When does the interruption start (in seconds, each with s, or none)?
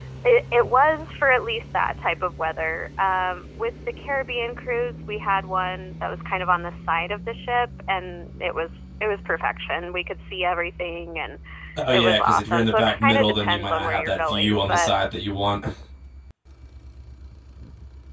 11.9 s